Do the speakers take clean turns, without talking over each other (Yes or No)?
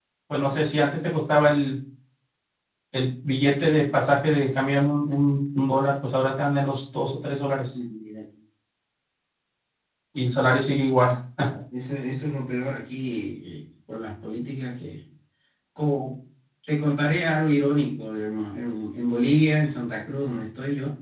Yes